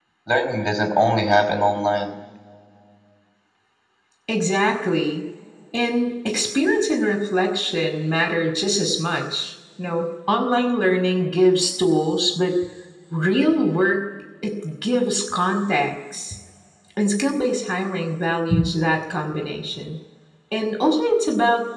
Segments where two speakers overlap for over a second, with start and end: none

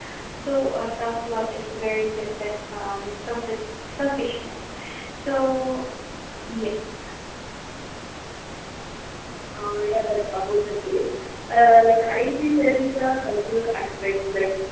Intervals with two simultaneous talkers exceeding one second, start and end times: none

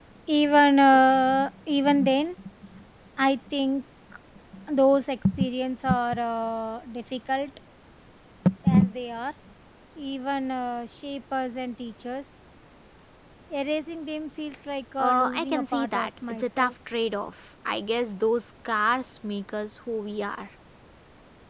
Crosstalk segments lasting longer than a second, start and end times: 15.0-16.7

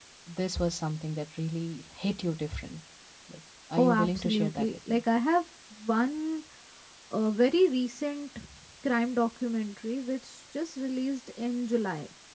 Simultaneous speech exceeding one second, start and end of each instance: 3.8-5.0

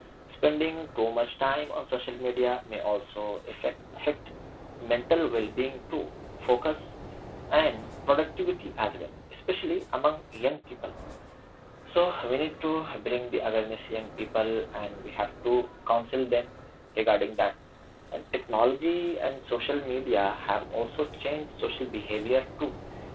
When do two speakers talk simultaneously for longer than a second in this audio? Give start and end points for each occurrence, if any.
none

